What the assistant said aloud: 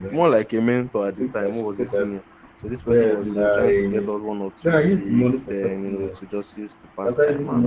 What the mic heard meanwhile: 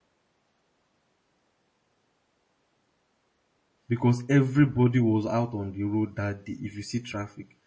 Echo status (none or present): none